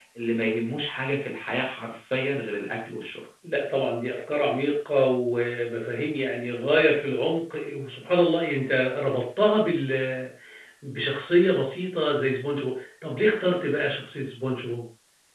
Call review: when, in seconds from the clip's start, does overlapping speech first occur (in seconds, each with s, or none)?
none